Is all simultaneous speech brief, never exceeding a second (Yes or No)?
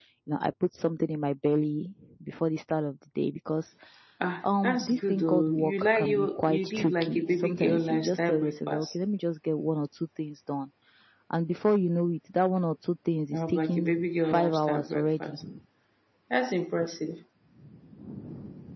No